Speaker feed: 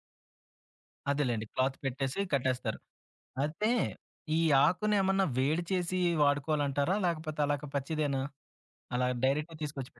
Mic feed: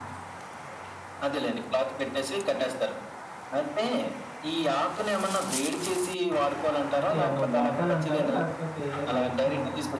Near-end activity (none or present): present